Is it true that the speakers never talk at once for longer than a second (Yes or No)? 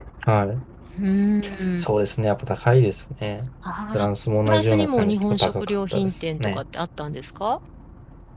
No